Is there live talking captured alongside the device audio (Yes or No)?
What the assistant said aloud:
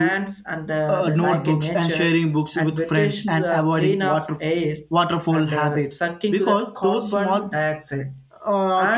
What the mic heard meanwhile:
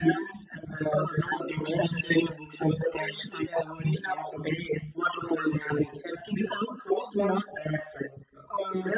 No